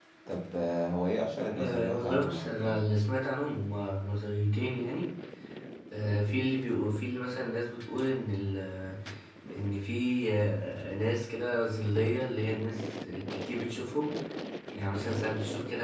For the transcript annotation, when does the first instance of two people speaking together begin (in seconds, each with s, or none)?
1.6 s